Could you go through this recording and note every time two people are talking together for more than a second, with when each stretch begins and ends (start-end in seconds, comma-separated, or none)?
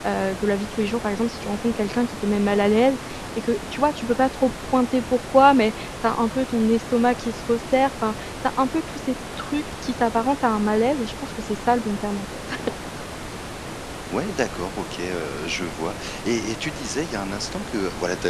none